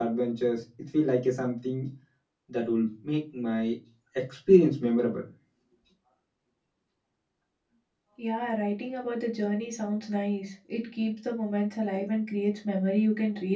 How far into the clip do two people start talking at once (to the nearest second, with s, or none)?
none